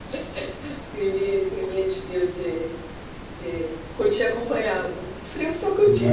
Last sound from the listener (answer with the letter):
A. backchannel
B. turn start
A